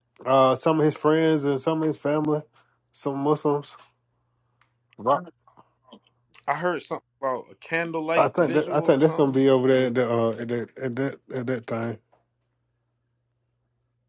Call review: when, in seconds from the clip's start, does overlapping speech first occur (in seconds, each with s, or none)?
8.2 s